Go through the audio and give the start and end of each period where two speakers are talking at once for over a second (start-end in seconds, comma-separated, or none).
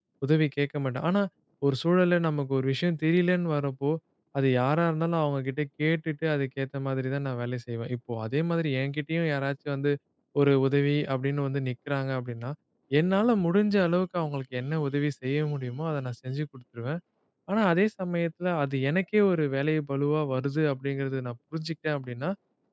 none